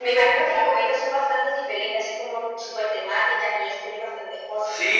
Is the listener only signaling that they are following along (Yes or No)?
No